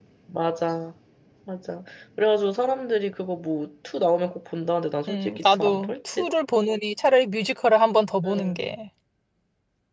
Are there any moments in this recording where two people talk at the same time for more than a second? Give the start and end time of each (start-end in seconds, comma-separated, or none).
5.1-6.3